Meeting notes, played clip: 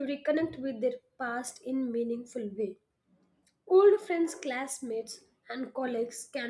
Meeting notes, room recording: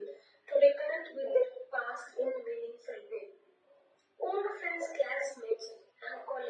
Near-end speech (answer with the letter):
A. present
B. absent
B